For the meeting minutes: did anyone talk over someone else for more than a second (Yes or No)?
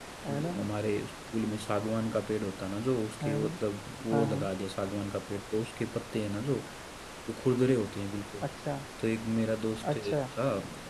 No